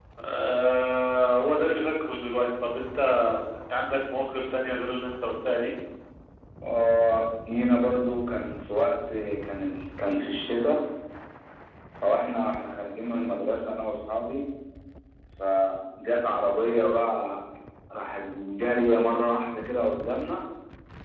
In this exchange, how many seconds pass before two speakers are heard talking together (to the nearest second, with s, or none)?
none